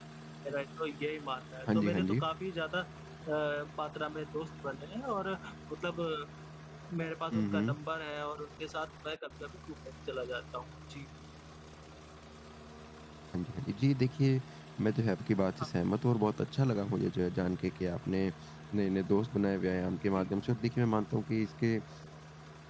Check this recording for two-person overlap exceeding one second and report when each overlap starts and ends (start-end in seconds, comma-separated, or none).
none